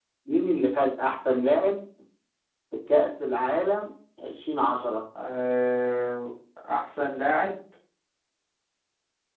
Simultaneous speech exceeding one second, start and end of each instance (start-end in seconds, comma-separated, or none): none